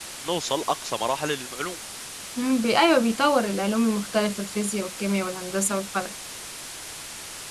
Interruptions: none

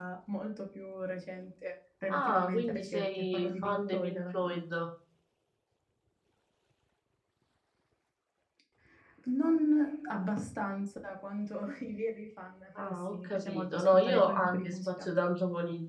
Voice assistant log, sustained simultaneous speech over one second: present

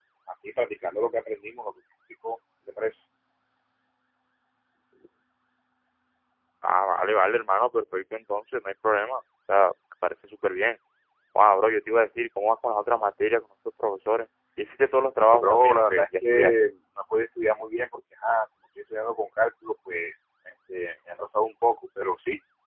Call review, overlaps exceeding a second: present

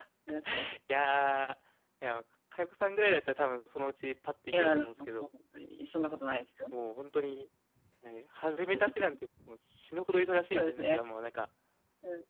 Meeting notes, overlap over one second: none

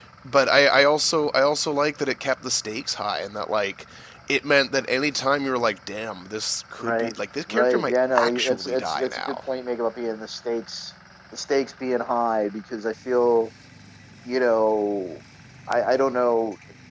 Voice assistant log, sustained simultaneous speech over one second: present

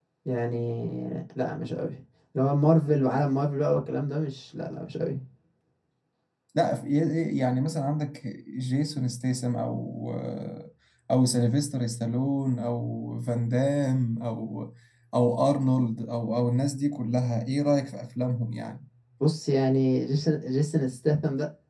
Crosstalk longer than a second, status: none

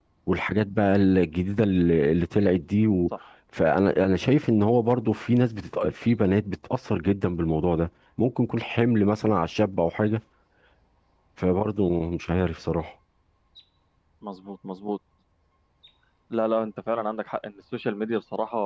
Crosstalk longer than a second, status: none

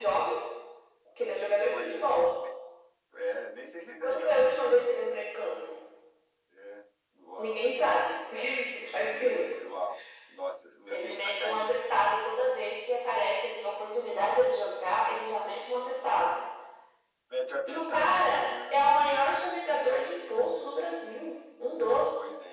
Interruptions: present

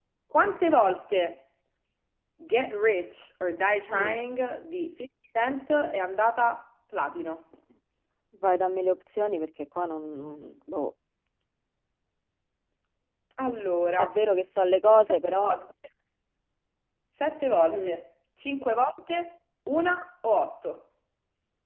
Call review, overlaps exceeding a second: none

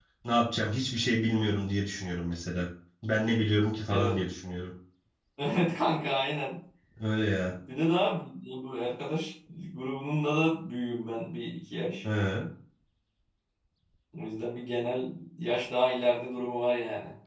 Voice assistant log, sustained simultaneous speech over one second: none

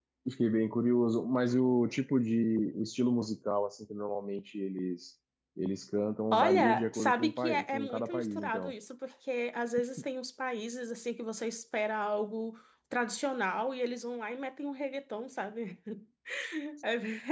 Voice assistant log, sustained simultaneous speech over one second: present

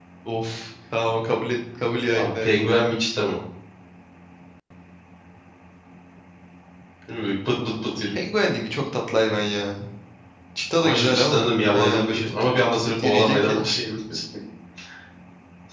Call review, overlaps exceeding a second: present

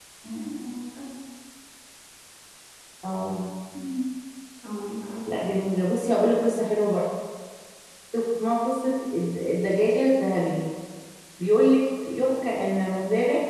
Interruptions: none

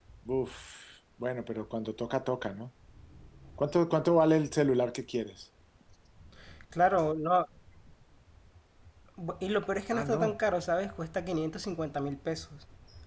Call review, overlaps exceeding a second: none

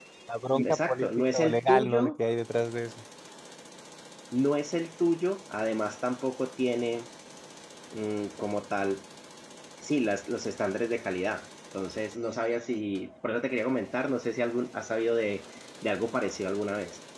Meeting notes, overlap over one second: present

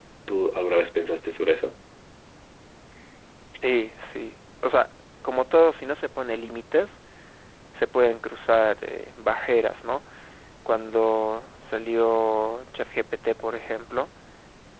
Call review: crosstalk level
none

